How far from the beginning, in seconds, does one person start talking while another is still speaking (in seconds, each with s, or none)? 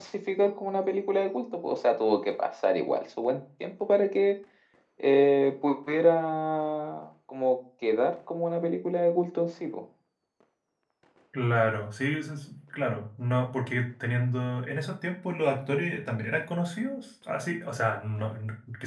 none